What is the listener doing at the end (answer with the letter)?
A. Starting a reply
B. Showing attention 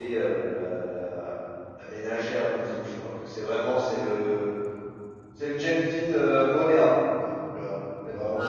B